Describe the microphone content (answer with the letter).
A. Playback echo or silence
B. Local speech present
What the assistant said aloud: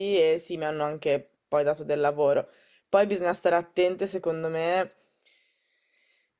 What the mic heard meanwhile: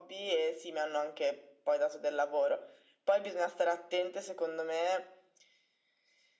A